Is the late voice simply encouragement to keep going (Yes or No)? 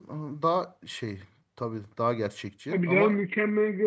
No